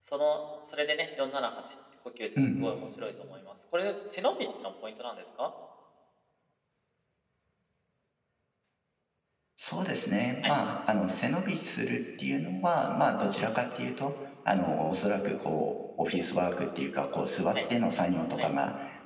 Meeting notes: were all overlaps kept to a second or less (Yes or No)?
Yes